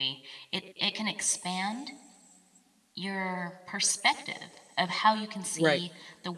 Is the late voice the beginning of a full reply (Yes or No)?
No